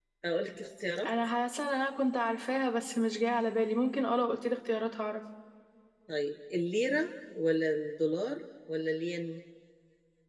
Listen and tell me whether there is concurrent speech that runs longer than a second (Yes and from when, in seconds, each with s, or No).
No